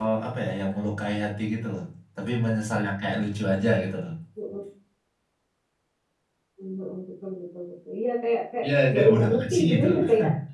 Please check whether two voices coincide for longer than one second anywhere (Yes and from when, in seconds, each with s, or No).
Yes, from 8.6 s